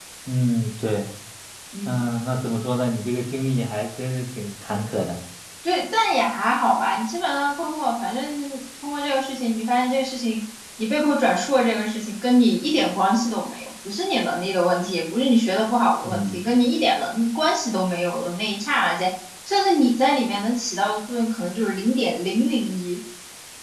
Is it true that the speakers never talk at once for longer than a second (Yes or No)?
Yes